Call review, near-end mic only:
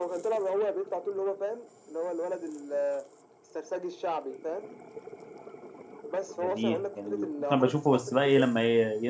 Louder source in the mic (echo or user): user